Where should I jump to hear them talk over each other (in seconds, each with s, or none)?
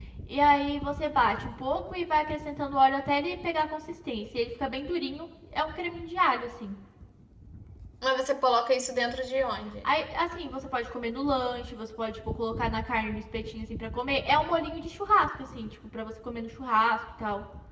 none